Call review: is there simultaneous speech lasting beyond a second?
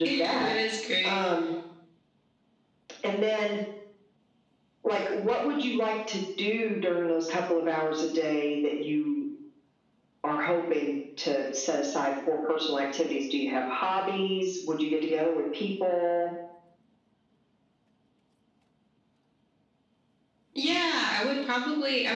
No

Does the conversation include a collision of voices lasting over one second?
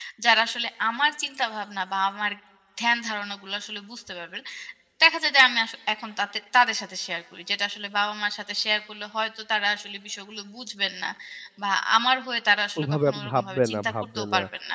Yes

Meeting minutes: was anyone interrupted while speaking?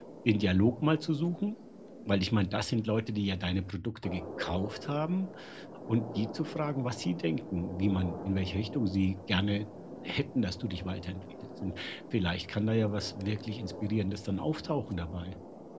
No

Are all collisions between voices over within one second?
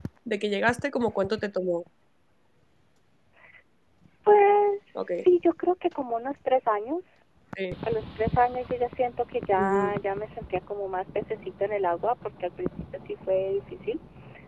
Yes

